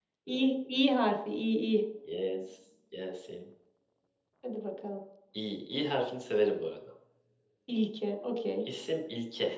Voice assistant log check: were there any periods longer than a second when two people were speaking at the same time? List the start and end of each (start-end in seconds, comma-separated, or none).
none